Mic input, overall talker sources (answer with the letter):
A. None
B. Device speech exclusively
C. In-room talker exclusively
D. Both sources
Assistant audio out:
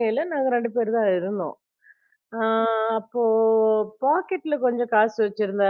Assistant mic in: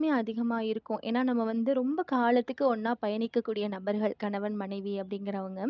C